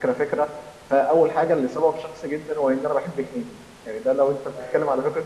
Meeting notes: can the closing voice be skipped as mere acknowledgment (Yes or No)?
Yes